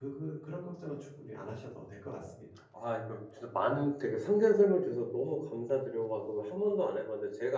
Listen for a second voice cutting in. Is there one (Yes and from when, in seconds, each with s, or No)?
No